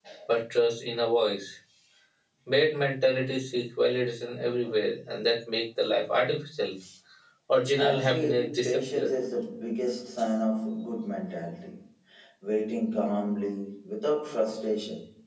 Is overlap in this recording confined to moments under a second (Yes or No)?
No